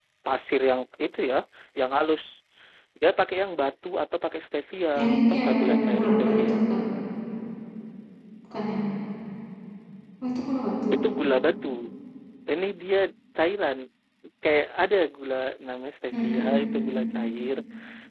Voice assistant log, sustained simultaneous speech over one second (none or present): present